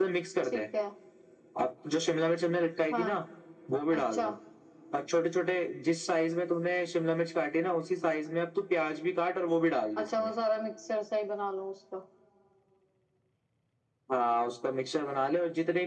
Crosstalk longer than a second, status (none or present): none